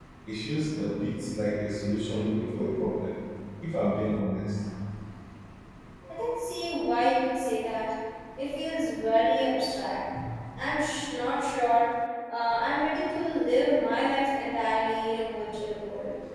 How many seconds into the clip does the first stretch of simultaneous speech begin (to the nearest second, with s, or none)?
none